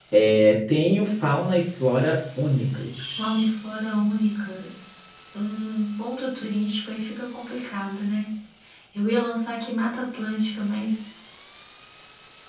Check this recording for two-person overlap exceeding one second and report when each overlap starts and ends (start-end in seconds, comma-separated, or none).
none